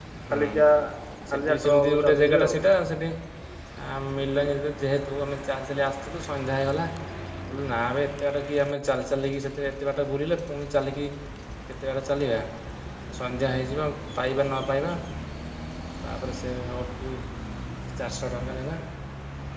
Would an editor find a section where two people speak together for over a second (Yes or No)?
Yes